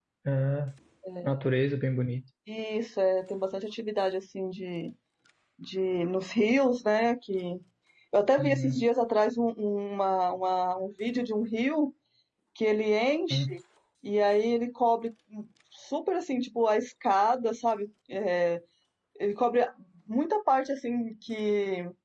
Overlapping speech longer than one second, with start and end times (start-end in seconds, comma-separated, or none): none